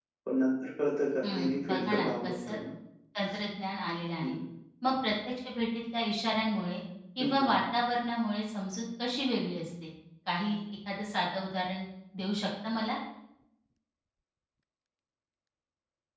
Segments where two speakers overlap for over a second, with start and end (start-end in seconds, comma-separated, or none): 1.2-2.5